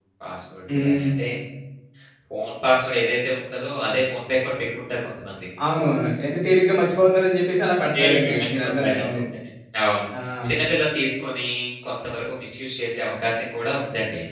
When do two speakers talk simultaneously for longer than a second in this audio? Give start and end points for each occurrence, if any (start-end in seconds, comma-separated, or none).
7.9-9.2